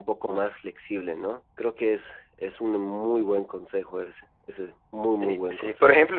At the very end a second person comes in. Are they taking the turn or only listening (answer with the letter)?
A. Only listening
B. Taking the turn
B